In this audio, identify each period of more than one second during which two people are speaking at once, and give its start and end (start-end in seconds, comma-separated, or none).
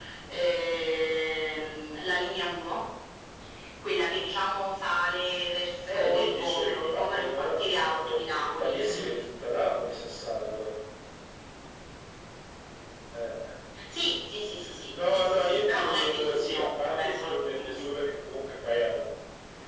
5.9-9.2, 14.9-17.9